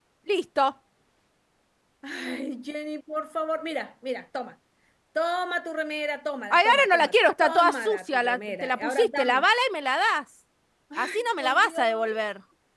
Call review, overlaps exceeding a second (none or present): present